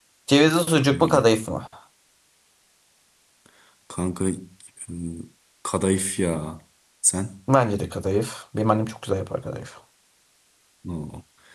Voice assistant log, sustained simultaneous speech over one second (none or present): none